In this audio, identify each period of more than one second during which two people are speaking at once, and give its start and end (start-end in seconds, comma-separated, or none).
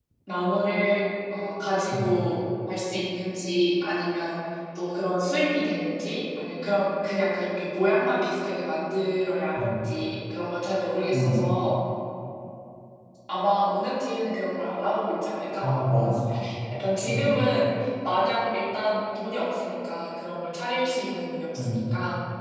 none